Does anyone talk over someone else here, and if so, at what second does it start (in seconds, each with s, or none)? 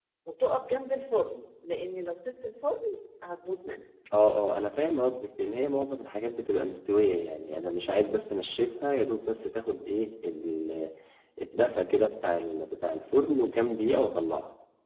none